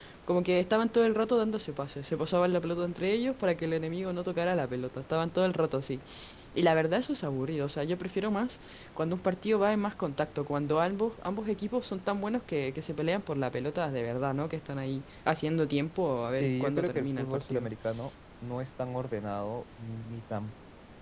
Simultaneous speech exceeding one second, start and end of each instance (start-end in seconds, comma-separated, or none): 16.2-17.7